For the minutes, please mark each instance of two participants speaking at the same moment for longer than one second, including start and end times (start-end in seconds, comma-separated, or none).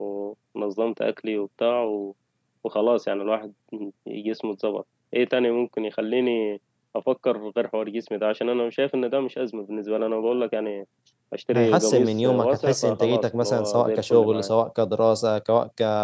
11.6-14.5